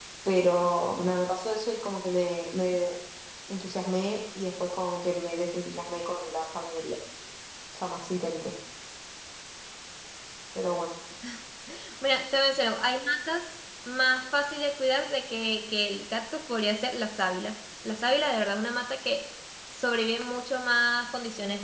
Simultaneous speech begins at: none

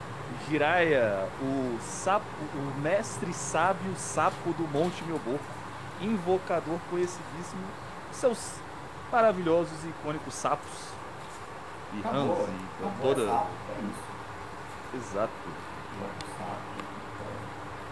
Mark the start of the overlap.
12.0 s

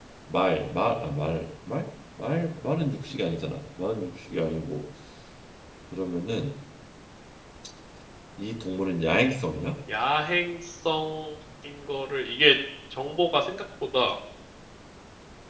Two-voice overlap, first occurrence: none

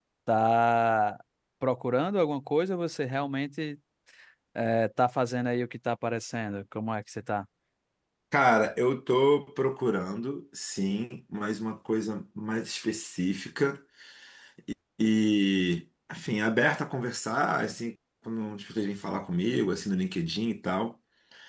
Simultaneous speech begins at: none

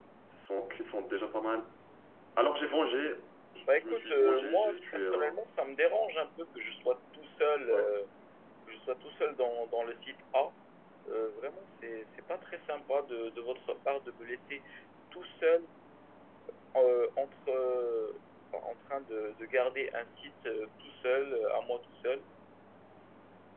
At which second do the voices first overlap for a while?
3.7 s

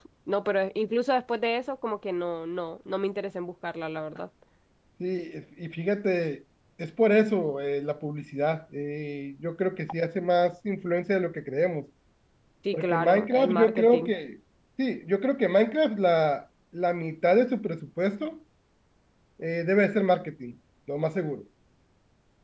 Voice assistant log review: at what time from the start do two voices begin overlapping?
12.7 s

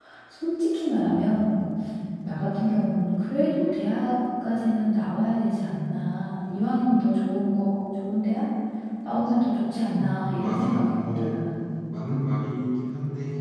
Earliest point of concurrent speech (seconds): 10.0 s

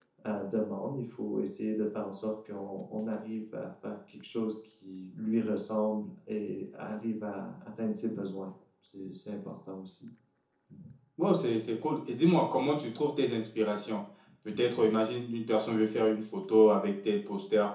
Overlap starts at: none

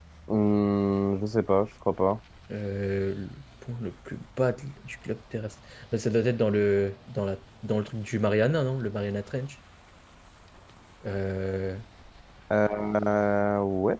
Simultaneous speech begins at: none

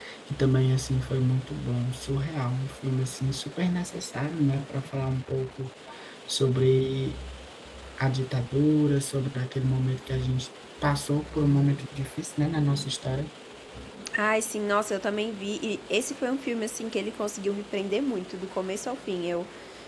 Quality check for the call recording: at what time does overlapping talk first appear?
none

